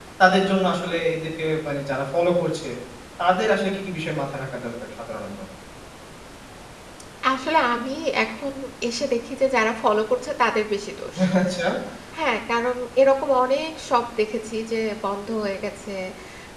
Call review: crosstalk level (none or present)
none